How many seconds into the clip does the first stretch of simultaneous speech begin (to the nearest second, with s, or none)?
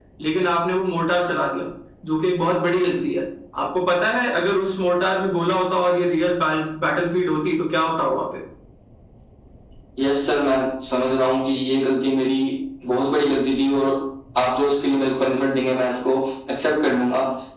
none